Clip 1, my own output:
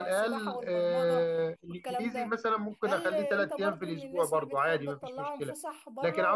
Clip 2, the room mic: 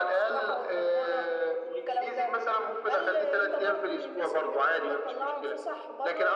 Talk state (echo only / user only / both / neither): echo only